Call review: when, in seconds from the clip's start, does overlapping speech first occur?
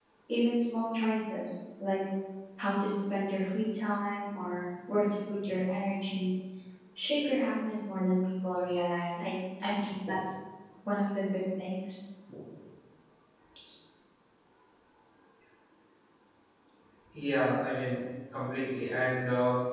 none

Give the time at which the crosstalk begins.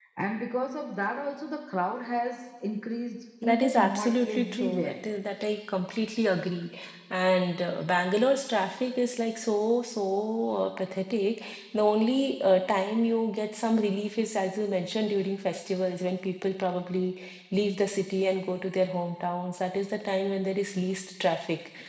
3 s

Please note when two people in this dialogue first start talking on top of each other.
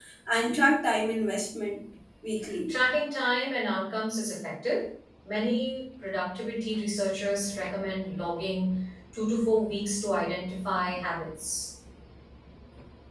none

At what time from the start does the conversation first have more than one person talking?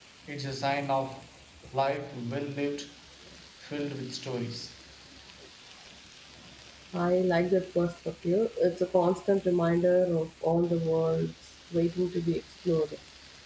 none

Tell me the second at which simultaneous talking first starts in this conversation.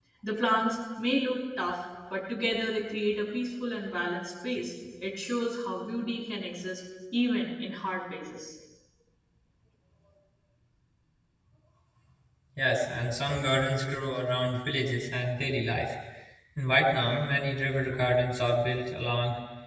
none

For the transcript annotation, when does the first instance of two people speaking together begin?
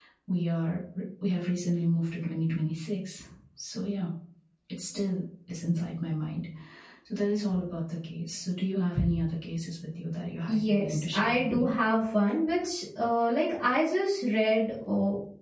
10 s

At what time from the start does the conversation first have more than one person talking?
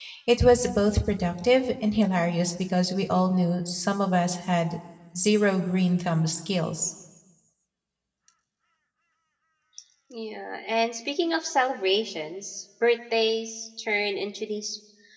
none

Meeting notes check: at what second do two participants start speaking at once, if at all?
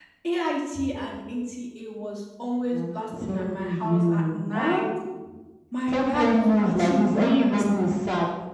3 s

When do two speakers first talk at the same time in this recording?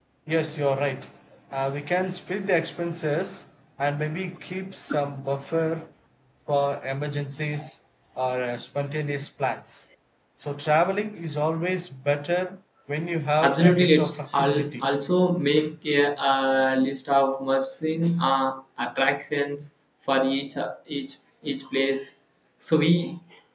13 s

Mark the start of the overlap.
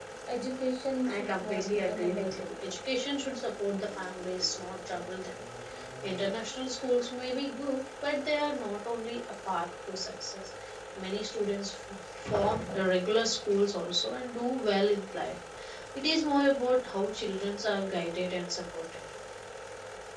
1 s

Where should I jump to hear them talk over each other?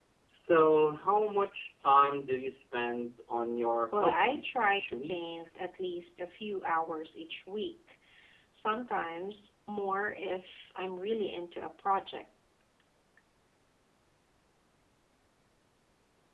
4 s

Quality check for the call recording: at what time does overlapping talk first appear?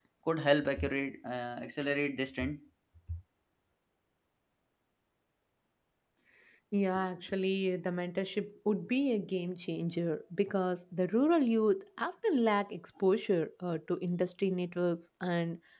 none

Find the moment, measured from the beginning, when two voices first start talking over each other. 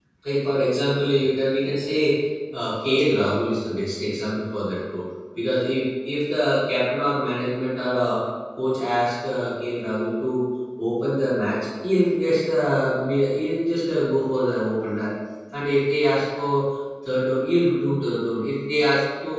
none

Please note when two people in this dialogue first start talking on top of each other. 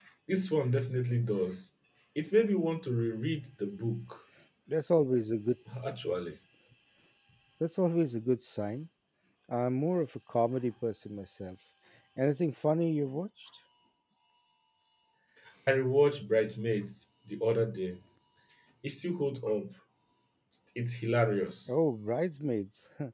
none

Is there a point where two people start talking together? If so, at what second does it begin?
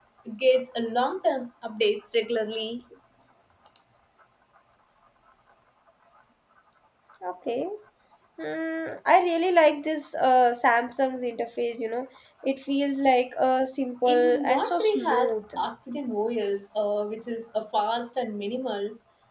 14 s

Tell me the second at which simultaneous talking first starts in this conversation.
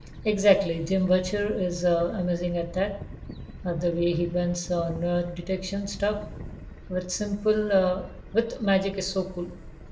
none

